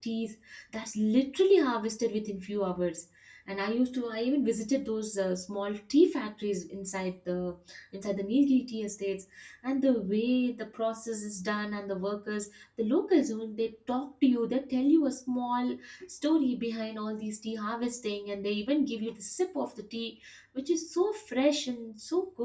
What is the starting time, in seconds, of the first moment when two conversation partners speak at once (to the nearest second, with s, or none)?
none